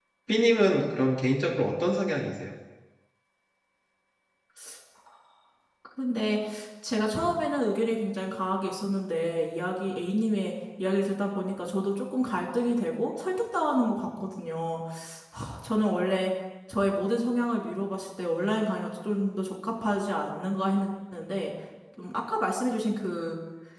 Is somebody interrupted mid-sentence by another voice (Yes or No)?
No